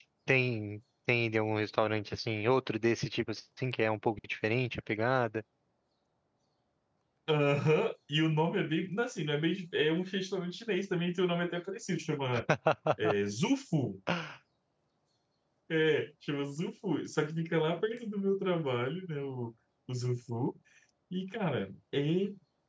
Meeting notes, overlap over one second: none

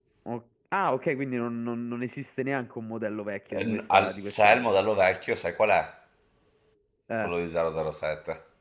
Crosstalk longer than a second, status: present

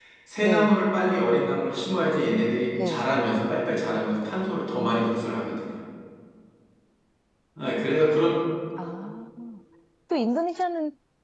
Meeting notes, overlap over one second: none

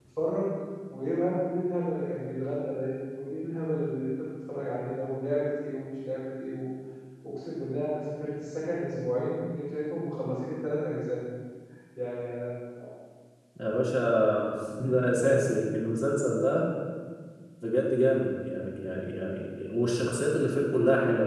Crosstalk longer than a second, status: none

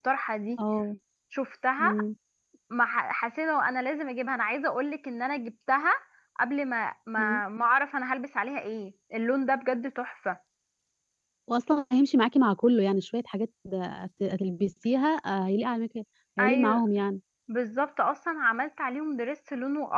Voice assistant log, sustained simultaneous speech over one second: none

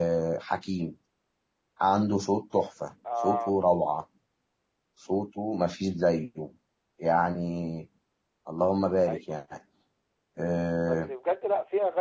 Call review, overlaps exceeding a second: none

